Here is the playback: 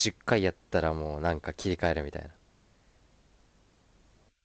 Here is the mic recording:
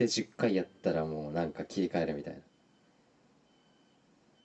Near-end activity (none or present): none